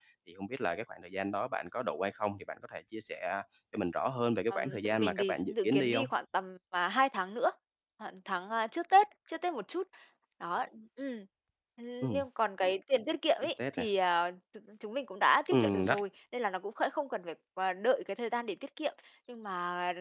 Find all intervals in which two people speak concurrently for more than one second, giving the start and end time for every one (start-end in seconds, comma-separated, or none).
4.5-6.1